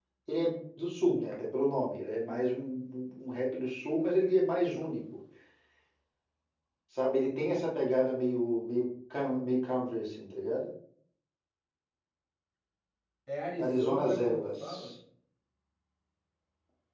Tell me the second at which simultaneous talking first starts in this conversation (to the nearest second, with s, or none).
14 s